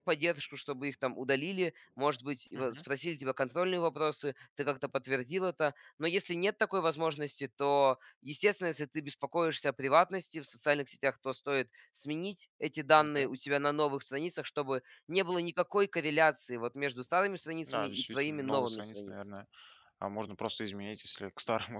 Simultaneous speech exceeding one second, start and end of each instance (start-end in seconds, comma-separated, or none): 17.7-19.2